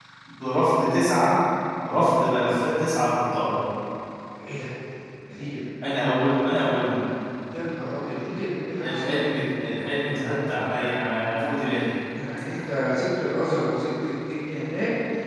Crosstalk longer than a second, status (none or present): none